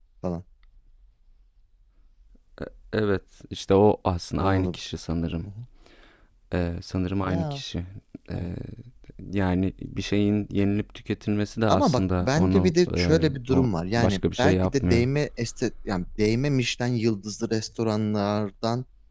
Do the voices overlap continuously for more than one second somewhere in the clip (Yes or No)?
Yes